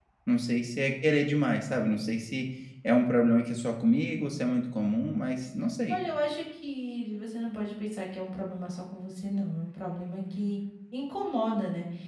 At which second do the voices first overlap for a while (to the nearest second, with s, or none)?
none